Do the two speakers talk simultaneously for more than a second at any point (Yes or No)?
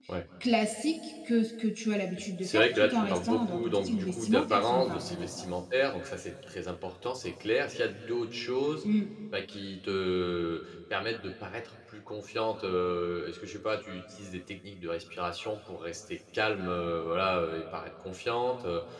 Yes